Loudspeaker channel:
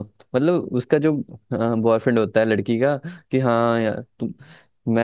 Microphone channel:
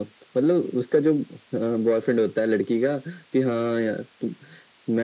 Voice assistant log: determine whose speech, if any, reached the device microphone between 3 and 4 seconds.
echo only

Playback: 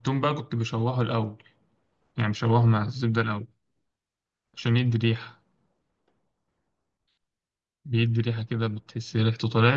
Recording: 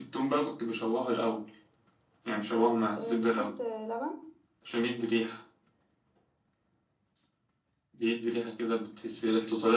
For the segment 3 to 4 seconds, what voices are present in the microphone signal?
both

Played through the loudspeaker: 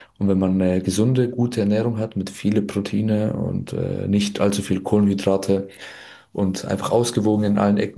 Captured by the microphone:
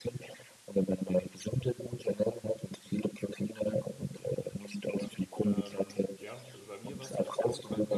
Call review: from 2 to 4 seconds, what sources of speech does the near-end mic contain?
echo only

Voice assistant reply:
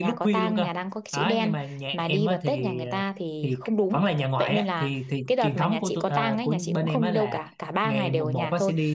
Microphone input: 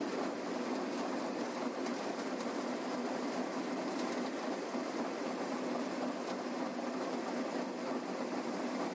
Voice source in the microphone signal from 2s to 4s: neither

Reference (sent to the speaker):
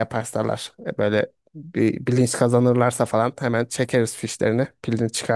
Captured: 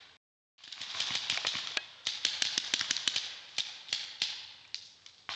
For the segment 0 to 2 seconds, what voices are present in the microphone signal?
neither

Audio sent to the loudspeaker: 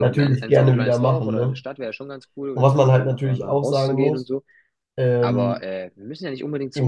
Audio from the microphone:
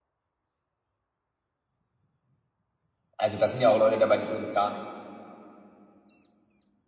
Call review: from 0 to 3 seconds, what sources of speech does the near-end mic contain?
neither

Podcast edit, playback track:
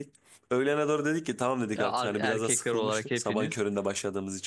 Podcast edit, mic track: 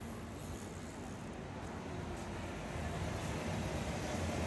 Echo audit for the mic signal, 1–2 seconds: neither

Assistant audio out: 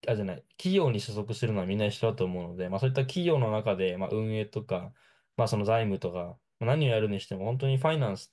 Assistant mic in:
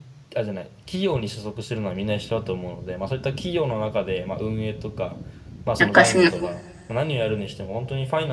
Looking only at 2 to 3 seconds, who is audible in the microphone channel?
echo only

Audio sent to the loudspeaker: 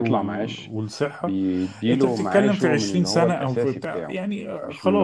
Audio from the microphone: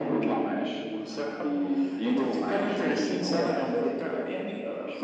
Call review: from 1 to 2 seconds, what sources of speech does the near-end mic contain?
echo only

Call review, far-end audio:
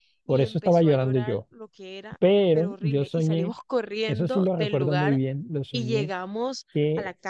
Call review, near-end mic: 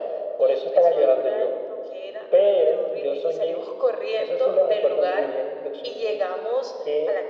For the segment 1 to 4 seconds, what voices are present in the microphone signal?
echo only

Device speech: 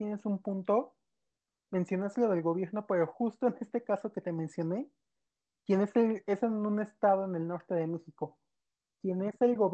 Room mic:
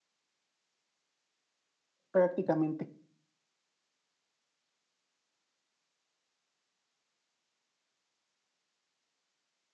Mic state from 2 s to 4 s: user only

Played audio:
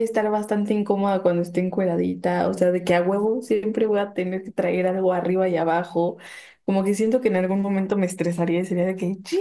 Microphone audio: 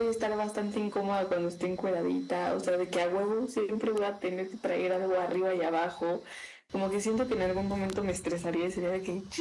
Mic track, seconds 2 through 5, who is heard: echo only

